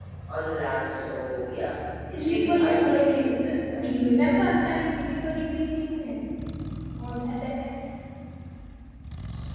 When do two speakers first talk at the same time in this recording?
2.1 s

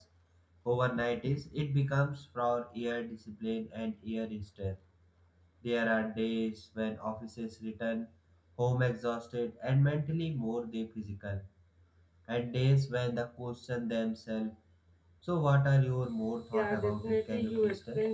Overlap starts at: 16.5 s

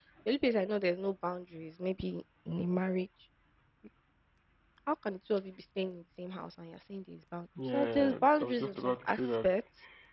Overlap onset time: 7.6 s

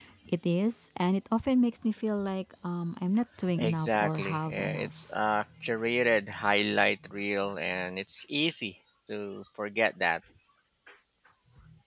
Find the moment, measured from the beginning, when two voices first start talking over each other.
3.6 s

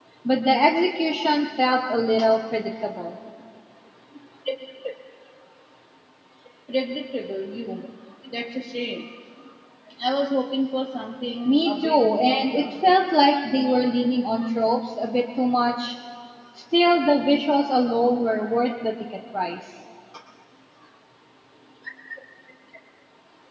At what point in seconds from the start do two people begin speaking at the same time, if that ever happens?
11.4 s

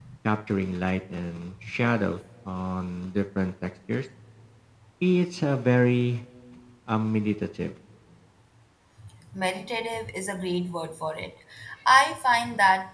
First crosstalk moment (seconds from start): none

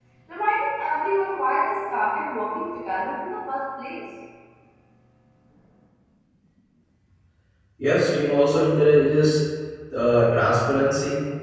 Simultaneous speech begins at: none

